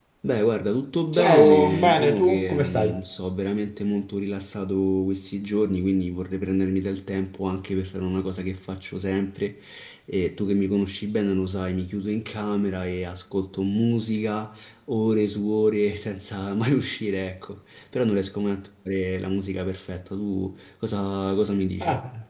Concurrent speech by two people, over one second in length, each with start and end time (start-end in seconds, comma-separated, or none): 1.1-2.9